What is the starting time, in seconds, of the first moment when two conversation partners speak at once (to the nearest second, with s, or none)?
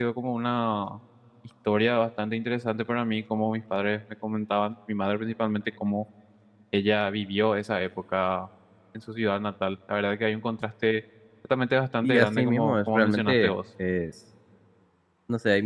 12 s